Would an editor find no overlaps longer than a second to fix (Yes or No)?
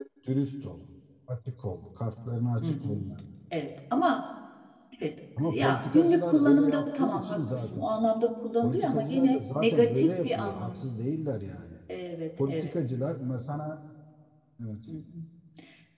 No